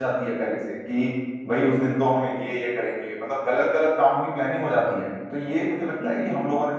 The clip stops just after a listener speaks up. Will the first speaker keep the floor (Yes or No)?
Yes